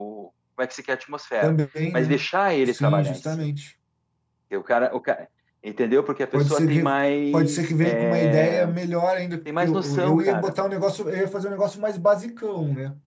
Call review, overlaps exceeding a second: present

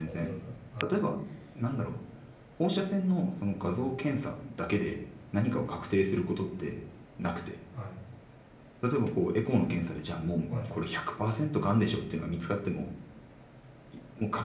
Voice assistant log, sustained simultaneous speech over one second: none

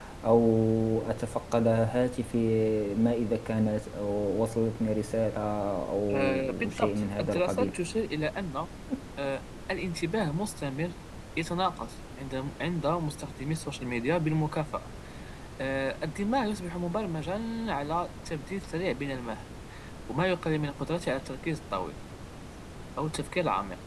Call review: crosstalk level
present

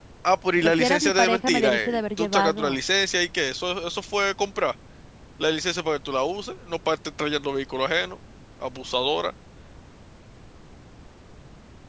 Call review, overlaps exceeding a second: present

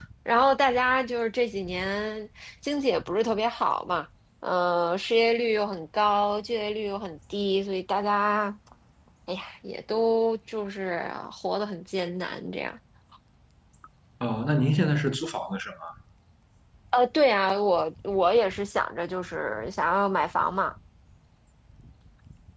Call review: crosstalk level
none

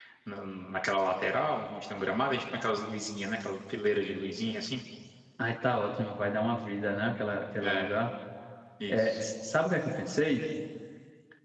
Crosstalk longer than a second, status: none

